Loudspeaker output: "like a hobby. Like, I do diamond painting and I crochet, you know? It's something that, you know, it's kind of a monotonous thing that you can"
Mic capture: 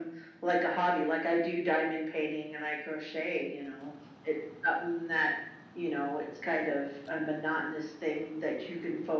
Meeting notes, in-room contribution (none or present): none